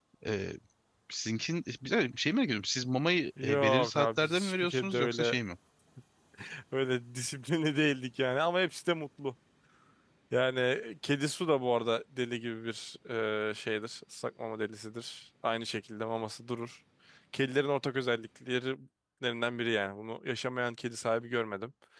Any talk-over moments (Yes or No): Yes